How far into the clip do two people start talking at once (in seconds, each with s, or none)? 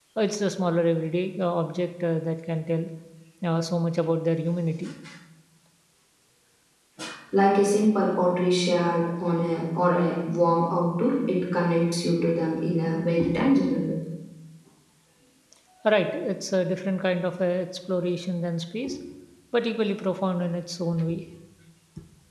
none